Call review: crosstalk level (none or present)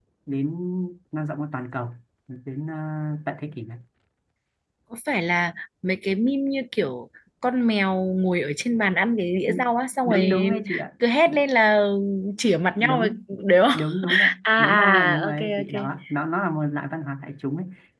present